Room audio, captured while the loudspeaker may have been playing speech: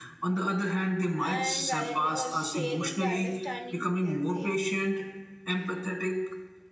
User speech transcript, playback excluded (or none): and valid or sharing the understanding, we can say.